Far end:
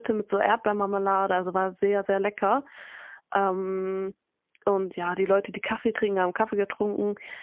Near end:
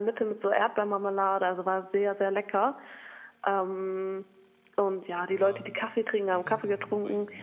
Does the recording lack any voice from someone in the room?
No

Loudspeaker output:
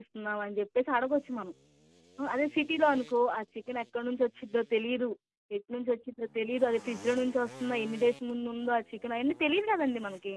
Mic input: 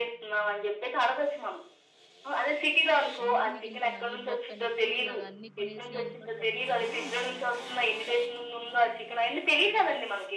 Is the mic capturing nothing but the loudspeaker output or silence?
No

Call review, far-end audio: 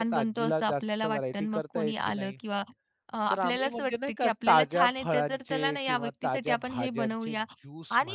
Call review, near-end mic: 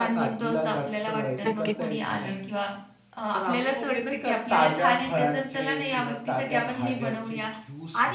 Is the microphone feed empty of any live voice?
No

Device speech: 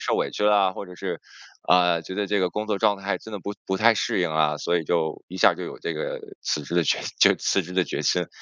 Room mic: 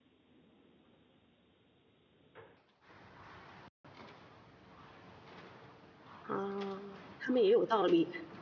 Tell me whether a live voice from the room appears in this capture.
Yes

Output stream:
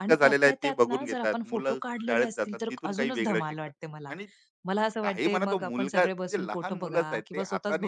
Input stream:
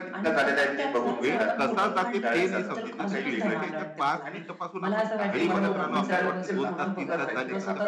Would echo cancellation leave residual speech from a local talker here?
Yes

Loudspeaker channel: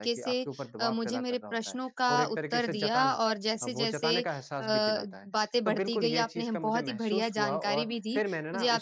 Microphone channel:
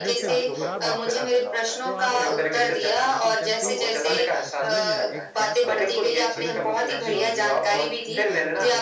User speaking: Yes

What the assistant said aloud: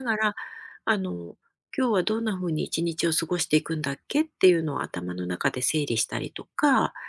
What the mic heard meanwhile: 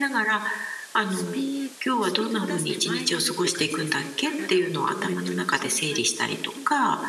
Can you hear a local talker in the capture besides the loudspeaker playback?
Yes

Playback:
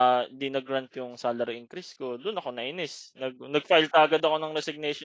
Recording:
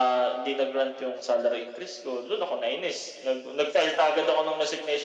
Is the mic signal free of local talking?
Yes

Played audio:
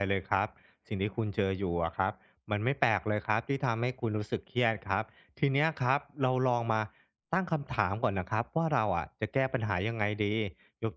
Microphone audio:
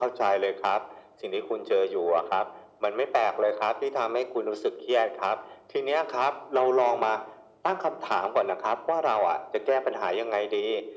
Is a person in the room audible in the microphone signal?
No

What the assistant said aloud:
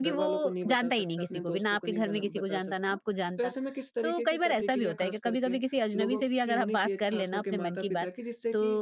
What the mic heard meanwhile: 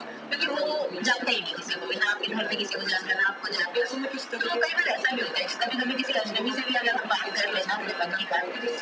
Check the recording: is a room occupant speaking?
No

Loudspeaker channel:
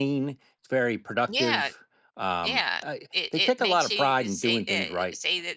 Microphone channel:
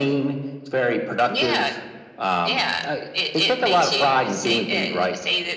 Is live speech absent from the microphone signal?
Yes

